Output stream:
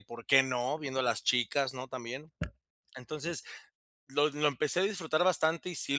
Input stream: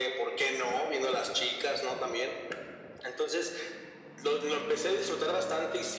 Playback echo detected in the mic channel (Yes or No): Yes